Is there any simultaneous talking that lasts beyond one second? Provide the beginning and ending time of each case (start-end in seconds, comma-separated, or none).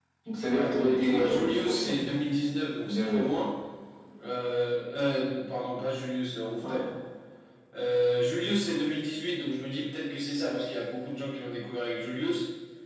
0.5-2.0